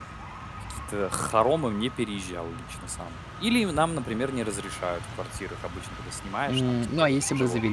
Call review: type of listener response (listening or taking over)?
taking over